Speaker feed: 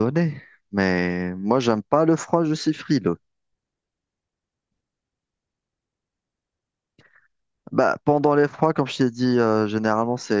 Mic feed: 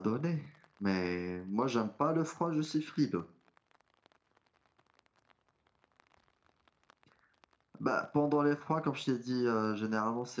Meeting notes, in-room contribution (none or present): none